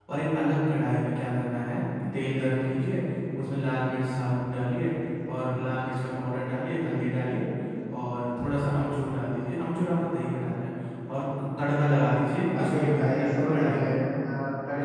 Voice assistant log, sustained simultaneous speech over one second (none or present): present